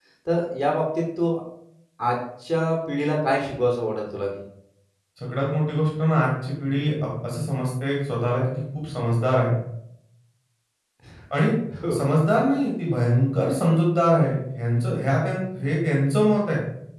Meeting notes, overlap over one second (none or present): none